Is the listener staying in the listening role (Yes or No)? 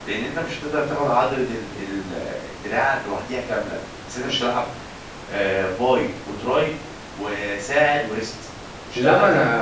No